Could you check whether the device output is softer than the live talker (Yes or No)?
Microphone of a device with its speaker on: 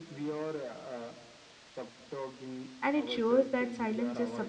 Yes